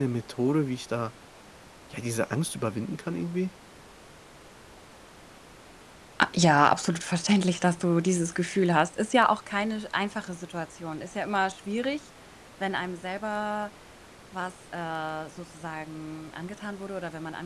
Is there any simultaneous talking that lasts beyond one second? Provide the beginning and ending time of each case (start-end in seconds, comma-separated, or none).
none